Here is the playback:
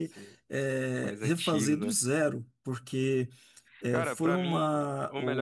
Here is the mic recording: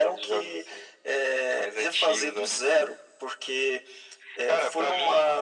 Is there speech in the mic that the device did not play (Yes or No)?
No